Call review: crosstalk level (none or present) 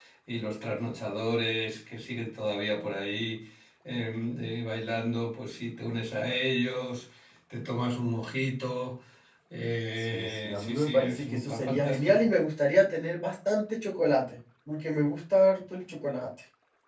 present